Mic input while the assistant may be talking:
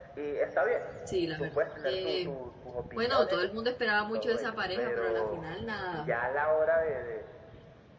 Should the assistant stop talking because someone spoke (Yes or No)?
Yes